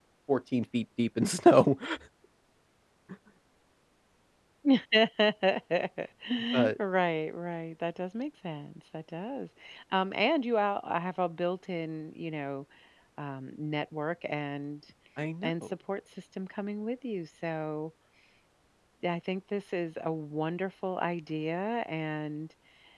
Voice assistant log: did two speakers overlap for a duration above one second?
No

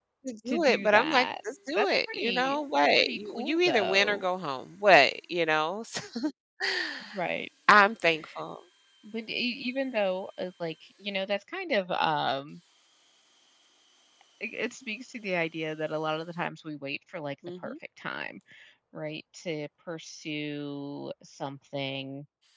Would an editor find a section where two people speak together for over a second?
Yes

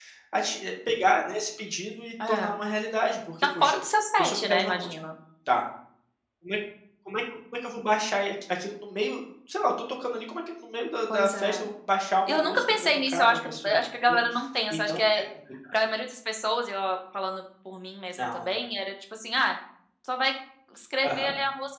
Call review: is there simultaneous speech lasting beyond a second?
Yes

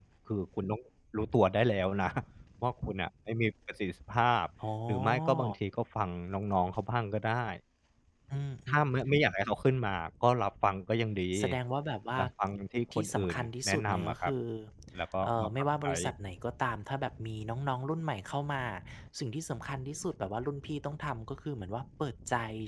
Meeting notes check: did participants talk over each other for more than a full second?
Yes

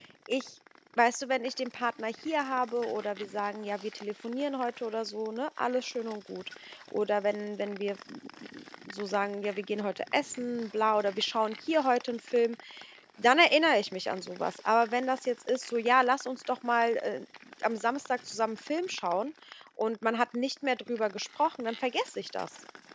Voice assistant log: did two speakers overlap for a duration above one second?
No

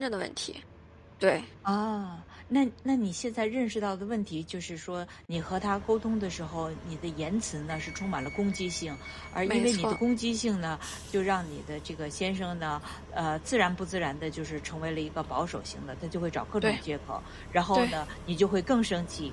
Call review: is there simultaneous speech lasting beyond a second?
No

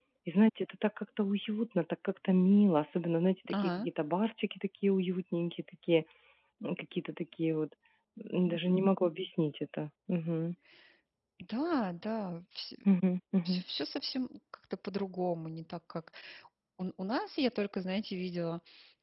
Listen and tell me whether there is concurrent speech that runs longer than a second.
No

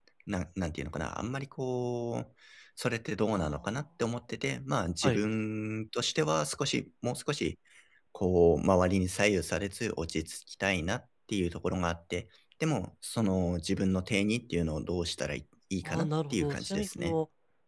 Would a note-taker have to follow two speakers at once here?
Yes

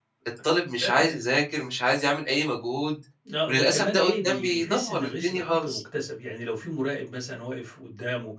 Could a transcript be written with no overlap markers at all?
No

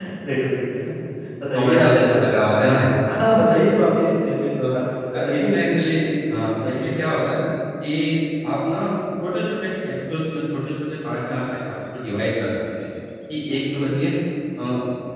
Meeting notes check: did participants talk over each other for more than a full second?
Yes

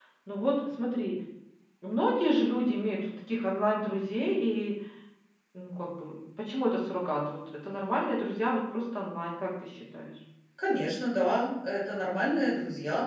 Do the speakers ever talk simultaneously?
No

